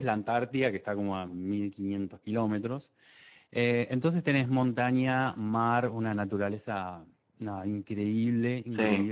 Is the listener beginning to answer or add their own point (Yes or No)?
No